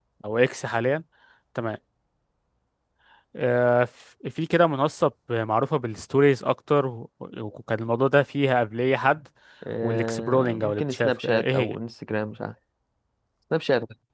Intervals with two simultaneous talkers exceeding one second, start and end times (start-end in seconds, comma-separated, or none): 9.8-11.8